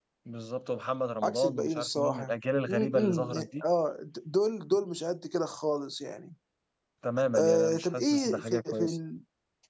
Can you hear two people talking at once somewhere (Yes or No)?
Yes